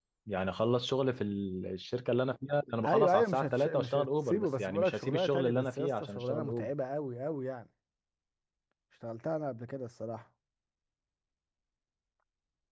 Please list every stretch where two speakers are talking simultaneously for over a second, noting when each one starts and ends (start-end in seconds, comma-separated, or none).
2.9-6.7